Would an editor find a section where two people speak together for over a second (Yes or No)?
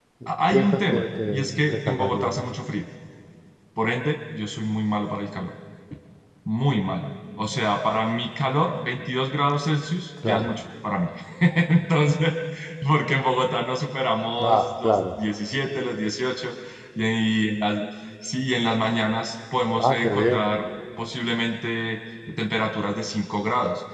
Yes